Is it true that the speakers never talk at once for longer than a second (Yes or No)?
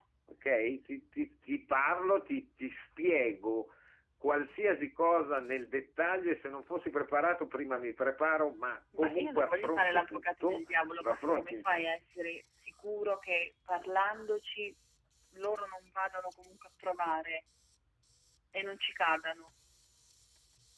No